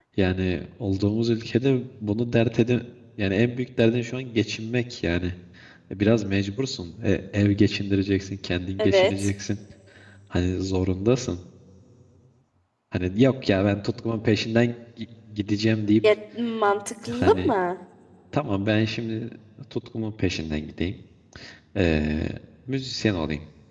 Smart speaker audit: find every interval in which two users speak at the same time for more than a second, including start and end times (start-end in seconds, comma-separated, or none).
none